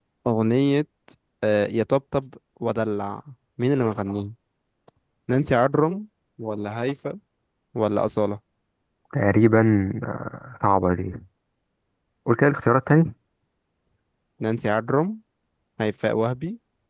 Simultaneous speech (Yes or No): No